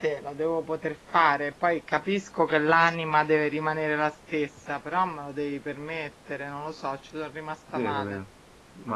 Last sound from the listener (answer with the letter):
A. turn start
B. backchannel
A